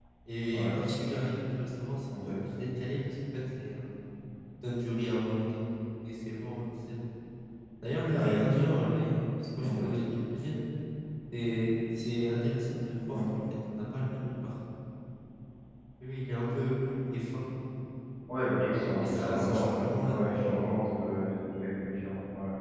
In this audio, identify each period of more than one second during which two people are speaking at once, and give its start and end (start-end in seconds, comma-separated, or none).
18.7-20.3